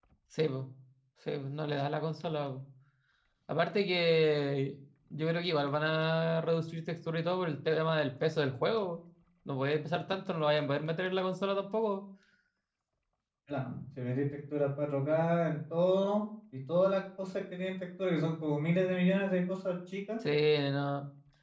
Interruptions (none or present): none